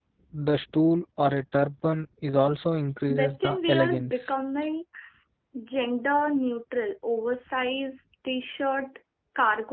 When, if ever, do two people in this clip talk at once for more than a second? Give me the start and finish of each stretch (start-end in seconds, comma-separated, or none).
3.1-4.3